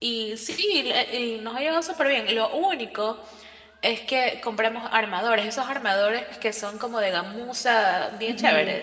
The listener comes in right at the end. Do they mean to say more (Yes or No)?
Yes